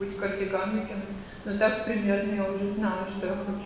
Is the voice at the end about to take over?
Yes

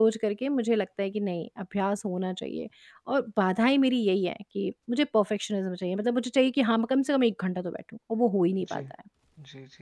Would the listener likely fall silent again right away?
No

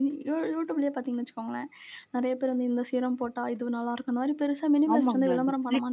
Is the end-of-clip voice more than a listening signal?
Yes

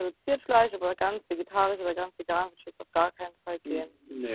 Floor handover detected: Yes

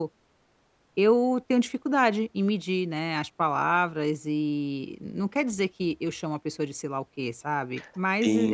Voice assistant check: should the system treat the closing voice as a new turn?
Yes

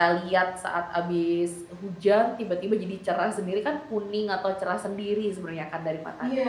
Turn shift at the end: Yes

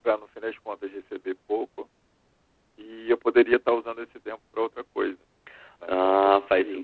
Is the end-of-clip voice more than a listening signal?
Yes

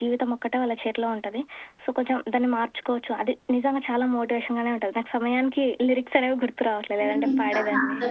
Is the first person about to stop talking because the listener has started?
Yes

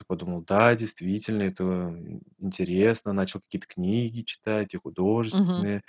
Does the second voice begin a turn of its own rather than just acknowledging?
No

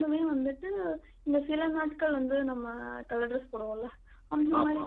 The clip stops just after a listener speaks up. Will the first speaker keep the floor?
Yes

